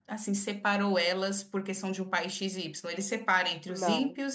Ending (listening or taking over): listening